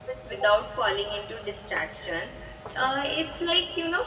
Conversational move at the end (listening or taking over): listening